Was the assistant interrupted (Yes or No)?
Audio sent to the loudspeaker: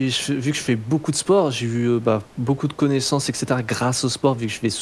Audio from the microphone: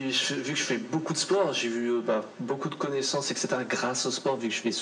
No